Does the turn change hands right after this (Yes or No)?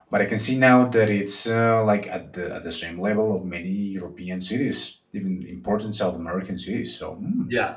Yes